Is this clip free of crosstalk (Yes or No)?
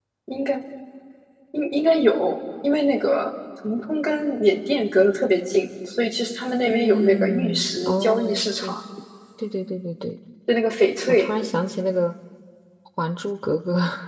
No